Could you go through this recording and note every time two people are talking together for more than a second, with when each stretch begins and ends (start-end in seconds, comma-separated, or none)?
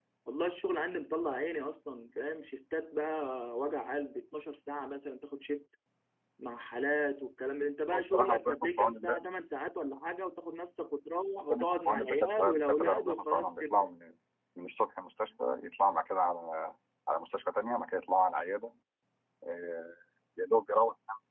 7.9-9.3, 11.5-13.9